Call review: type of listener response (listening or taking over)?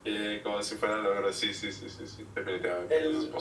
taking over